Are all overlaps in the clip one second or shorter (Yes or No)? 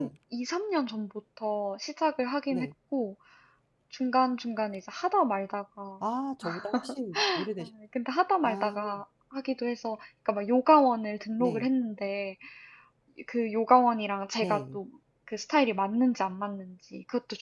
Yes